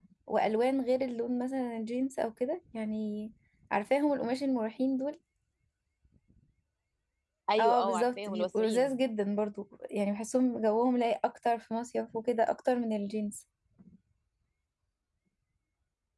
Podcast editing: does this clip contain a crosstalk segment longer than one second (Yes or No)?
Yes